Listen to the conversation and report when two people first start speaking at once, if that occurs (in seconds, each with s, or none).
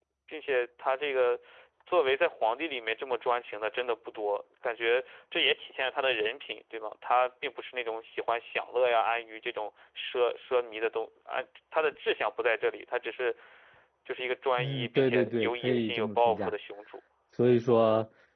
14.6 s